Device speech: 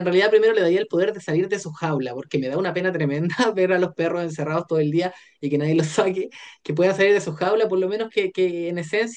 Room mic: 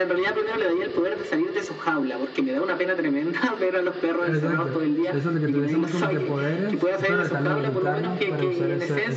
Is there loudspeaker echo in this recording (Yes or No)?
Yes